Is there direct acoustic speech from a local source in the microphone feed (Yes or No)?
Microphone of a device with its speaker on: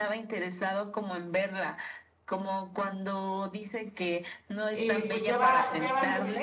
Yes